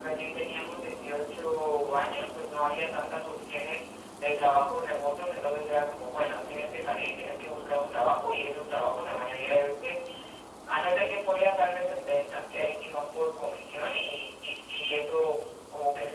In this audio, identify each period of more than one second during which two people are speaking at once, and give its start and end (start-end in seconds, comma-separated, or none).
none